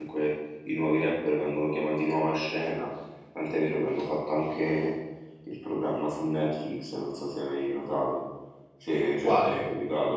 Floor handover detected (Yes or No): No